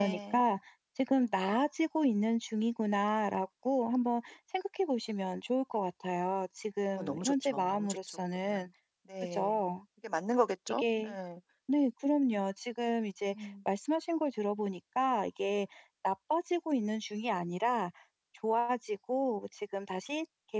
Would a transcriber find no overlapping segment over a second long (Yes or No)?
No